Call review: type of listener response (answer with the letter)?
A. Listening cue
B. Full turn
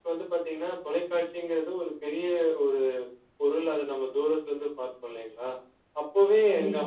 A